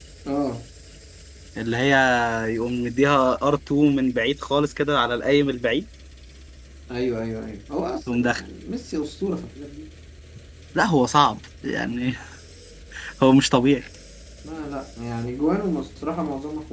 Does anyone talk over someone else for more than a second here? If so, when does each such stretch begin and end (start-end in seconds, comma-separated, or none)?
none